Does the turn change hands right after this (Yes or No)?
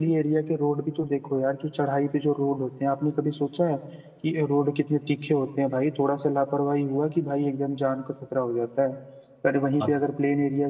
No